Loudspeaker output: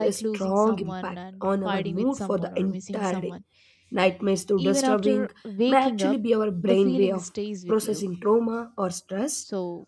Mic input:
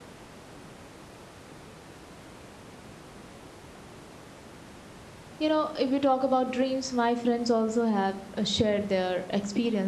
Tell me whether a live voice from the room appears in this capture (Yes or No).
Yes